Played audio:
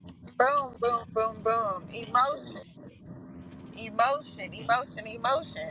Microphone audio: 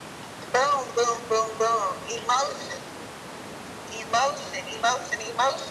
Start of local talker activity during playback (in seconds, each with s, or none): none